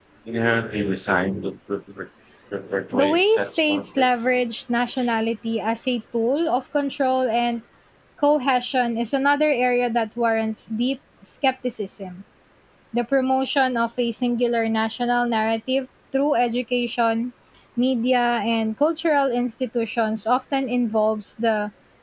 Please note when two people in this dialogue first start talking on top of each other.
2.9 s

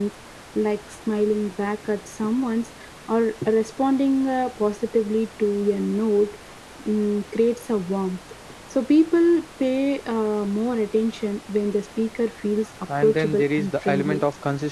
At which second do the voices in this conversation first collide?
12.9 s

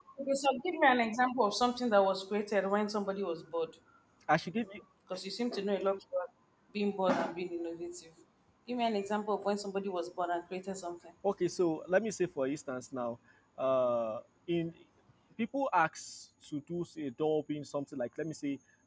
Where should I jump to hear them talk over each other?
none

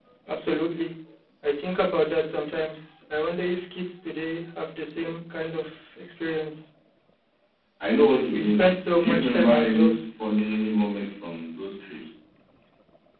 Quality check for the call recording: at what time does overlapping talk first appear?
8.3 s

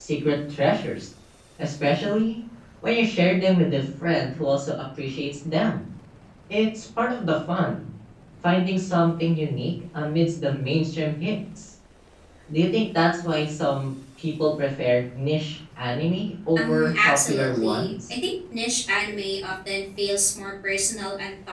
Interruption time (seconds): 16.6 s

